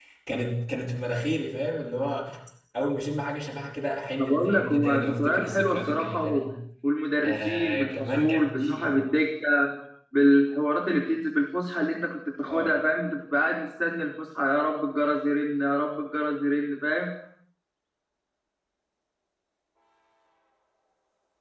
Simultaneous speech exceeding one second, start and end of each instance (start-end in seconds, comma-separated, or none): 4.2-6.5, 7.2-8.9